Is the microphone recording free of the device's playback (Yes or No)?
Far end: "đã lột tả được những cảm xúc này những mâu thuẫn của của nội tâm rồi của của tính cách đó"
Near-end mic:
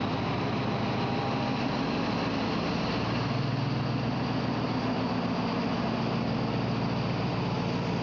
Yes